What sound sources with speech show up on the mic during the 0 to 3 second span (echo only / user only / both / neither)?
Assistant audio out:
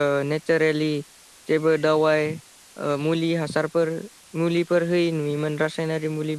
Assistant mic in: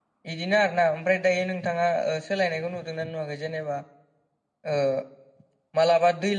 user only